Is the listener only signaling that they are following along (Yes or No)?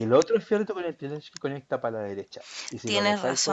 Yes